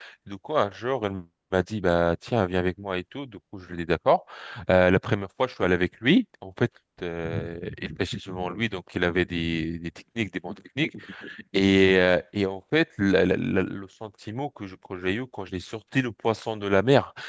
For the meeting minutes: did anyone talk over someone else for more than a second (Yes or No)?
No